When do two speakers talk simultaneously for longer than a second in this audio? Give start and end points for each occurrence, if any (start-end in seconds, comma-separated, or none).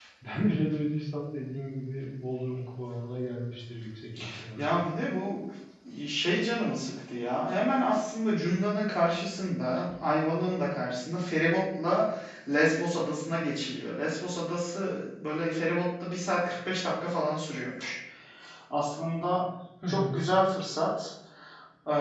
none